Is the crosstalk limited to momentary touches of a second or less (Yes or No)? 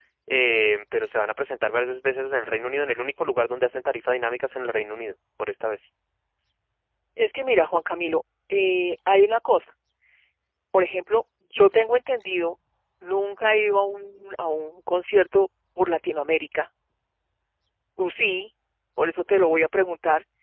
Yes